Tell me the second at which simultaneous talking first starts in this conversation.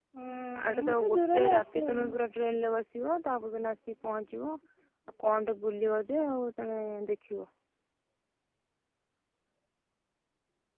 0.6 s

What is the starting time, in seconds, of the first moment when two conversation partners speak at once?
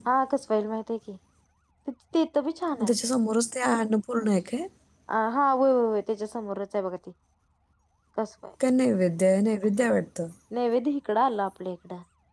none

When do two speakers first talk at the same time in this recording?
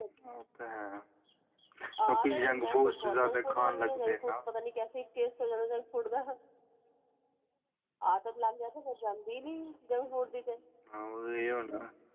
2.1 s

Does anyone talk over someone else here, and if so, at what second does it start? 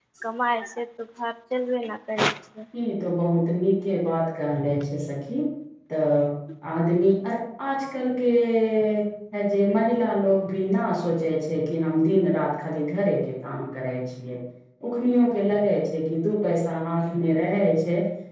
none

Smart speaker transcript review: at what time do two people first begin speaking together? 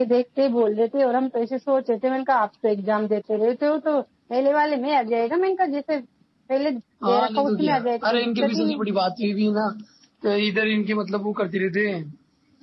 7.1 s

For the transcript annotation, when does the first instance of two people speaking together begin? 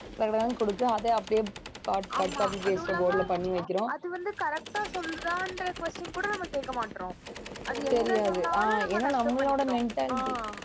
2.2 s

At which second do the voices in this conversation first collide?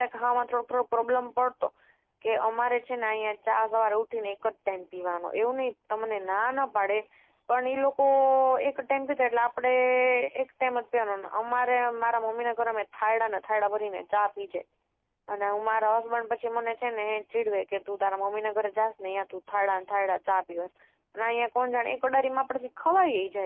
none

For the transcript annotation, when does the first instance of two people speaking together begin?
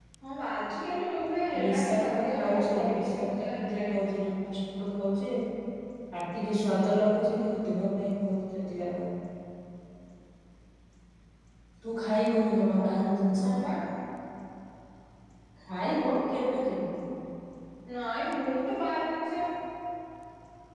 1.5 s

